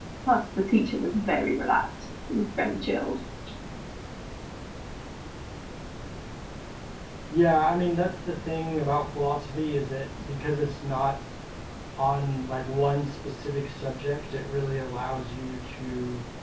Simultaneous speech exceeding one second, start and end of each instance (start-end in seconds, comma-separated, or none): none